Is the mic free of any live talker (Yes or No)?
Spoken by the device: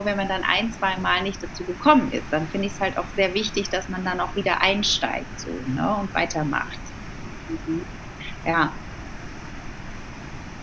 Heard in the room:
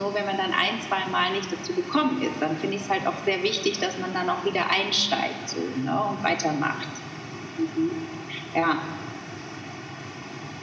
Yes